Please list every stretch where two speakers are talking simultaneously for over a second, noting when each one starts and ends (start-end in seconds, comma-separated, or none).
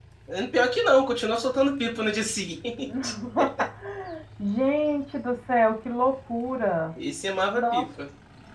none